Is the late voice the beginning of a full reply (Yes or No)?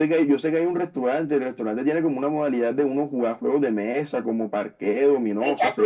Yes